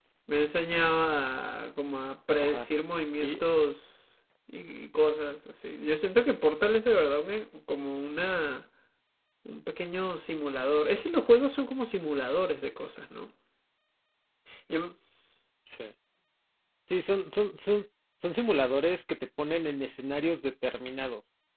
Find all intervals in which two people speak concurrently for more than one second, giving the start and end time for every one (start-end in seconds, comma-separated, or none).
none